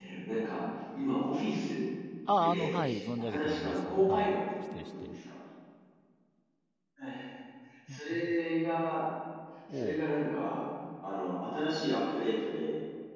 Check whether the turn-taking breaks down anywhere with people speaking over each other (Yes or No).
Yes